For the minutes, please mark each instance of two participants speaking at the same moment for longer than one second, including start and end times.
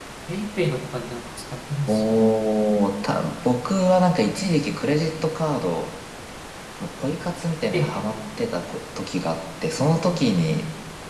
none

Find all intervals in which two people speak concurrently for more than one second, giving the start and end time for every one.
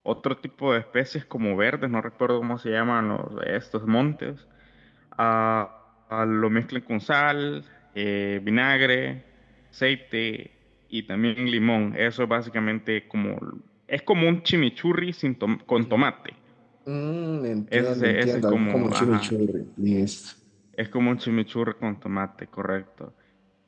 17.7-19.3

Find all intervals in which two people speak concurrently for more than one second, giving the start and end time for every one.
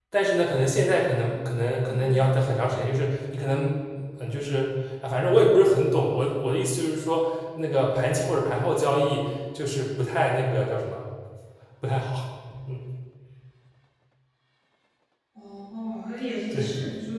none

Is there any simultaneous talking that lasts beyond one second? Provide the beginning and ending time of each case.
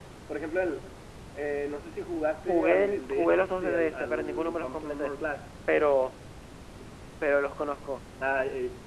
2.5-5.1

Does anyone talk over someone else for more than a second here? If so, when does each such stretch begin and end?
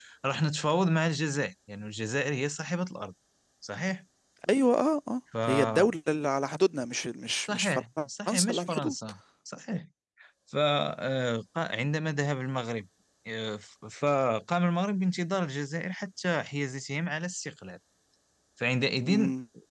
7.5-8.9

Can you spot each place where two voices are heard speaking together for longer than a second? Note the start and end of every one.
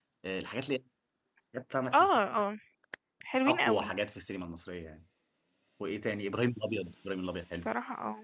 none

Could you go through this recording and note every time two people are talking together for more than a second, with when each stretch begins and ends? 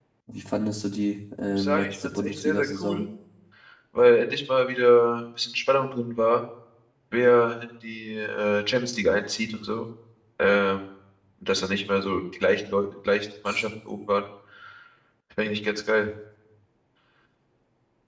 1.5-3.0

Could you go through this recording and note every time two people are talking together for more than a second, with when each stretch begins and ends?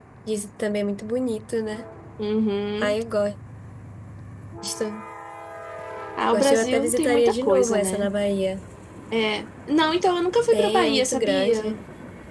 6.3-8.1, 10.5-11.8

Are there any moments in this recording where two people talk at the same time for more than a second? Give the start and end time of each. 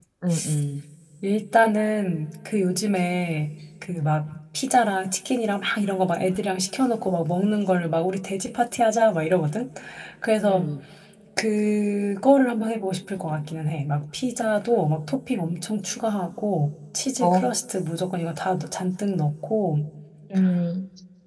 none

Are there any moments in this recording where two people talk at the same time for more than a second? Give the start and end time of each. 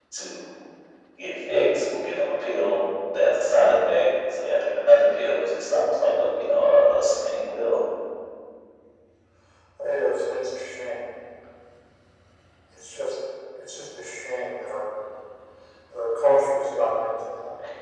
none

